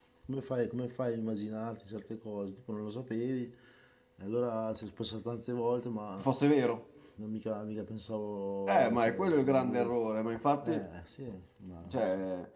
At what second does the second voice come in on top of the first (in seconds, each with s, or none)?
8.7 s